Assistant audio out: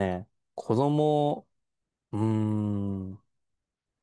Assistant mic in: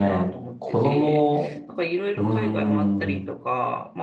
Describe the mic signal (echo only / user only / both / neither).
both